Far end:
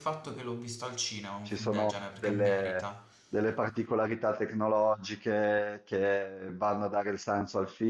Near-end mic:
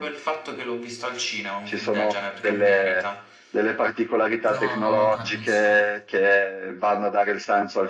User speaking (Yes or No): Yes